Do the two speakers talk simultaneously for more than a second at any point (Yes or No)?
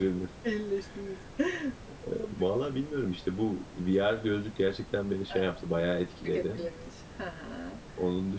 No